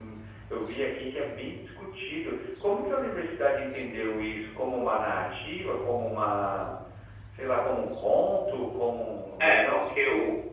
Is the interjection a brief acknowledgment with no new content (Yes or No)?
No